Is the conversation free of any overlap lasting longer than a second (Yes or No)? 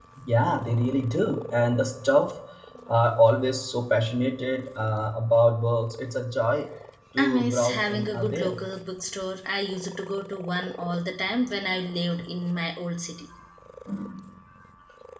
No